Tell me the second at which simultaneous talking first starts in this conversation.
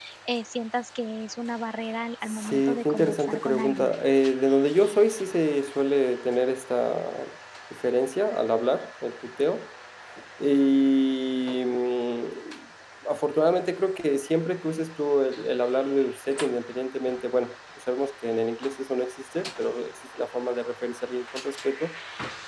2.3 s

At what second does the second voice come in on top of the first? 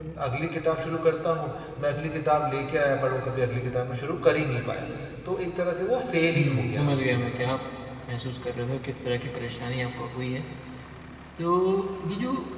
6.3 s

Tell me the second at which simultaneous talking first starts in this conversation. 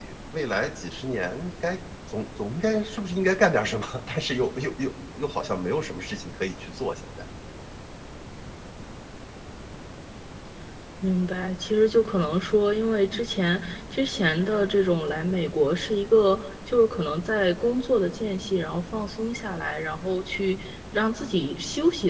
none

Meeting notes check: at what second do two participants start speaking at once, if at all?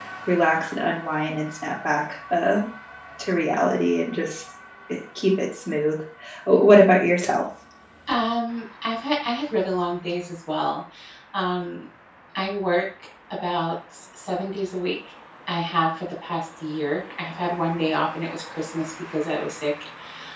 none

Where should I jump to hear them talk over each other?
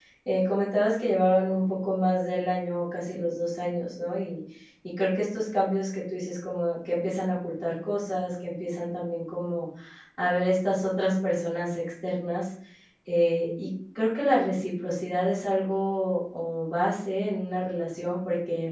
none

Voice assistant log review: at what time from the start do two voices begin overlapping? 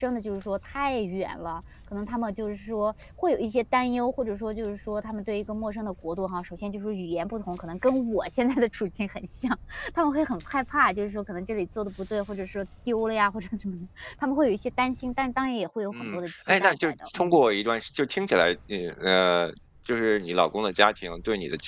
15.9 s

